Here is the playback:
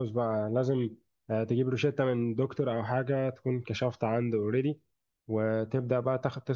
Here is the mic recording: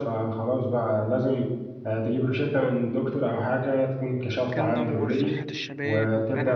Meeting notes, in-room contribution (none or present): present